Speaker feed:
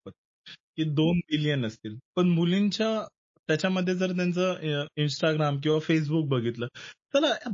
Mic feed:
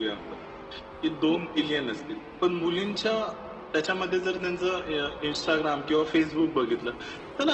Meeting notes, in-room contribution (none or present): none